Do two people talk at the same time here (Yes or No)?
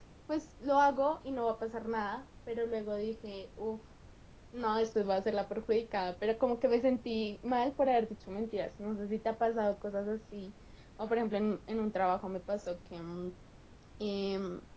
No